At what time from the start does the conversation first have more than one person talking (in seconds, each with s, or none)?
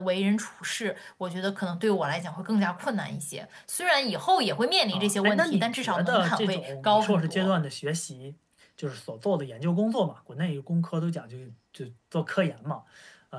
4.9 s